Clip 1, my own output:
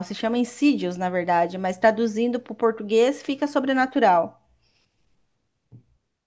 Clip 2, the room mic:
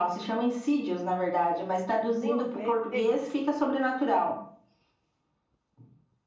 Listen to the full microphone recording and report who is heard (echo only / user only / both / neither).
both